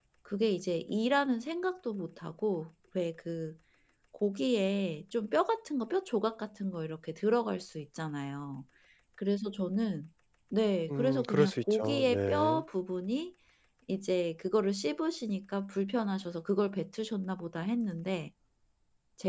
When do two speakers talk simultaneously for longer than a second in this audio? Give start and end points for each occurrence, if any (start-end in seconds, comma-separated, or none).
10.9-12.6